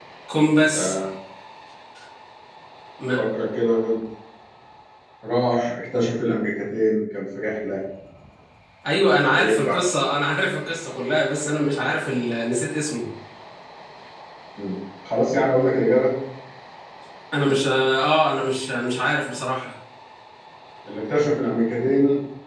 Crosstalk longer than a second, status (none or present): none